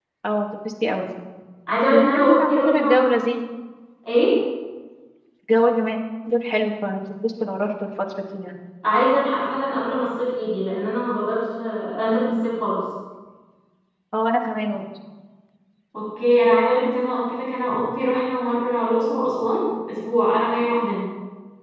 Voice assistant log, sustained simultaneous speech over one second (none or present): present